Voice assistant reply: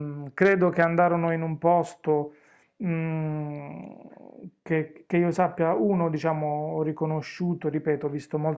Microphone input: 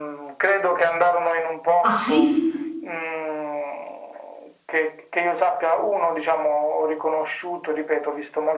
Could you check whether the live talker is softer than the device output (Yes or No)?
No